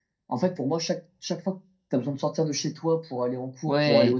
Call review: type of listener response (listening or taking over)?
listening